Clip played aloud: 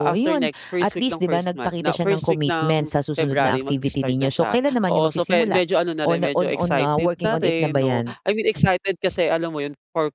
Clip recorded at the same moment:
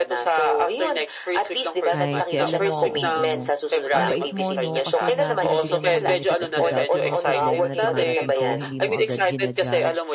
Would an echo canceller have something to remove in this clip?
Yes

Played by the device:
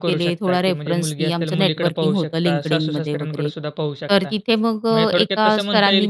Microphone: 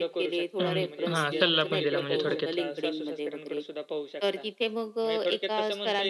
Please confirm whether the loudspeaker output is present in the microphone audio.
Yes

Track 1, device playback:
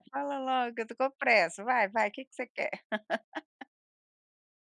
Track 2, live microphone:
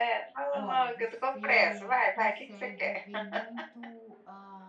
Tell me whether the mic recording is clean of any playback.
No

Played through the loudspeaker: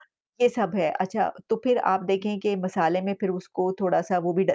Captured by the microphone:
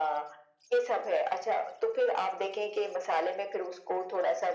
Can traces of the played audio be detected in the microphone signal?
Yes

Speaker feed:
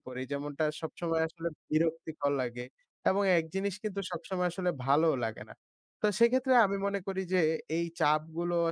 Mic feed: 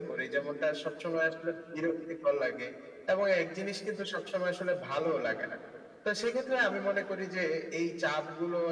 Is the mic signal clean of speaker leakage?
No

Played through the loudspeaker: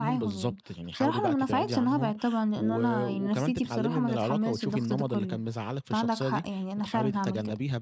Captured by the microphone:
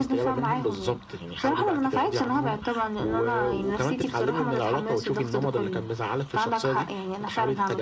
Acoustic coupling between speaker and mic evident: Yes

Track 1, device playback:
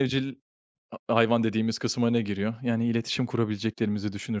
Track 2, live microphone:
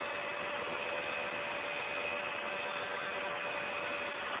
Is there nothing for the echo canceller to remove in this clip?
Yes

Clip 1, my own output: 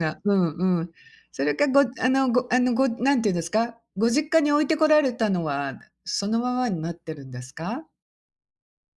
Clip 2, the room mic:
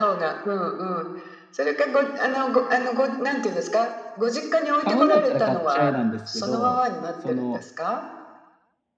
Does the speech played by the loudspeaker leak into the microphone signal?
Yes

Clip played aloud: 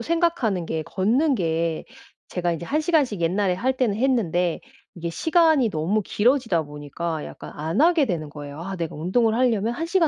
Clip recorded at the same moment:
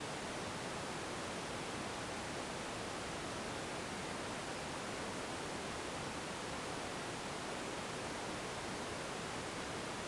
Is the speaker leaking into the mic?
No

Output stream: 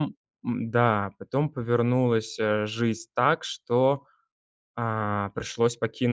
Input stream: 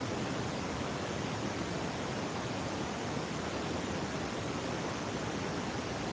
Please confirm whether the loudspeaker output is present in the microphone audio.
No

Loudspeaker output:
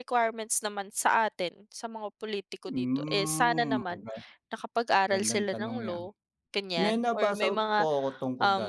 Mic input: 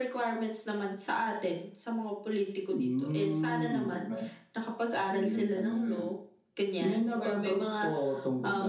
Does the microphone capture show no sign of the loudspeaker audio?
No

